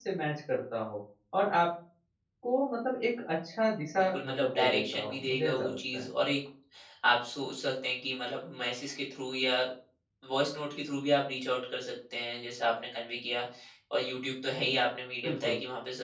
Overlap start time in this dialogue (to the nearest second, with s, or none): 4 s